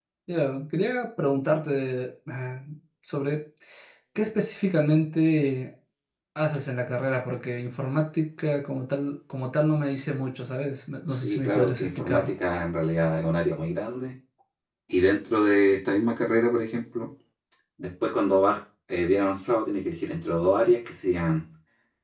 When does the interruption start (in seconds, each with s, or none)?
11.1 s